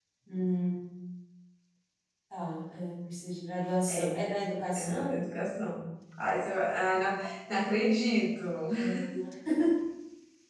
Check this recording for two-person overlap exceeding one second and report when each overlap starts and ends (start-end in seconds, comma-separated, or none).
none